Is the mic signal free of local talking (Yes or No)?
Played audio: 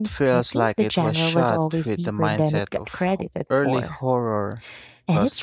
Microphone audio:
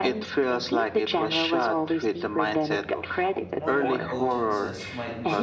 No